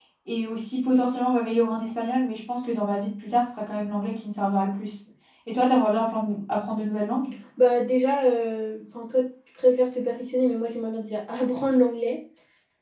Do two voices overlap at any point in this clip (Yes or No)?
No